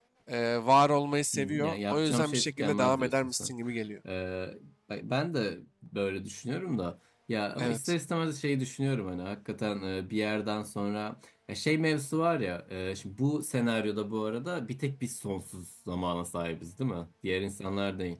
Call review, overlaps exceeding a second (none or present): present